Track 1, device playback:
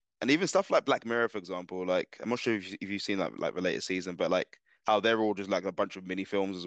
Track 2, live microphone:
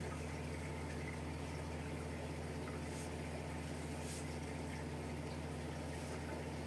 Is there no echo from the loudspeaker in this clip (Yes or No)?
Yes